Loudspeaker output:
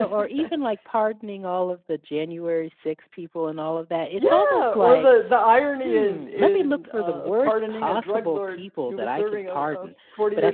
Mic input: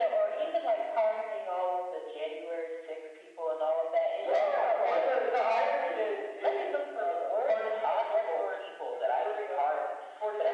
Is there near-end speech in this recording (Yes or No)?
No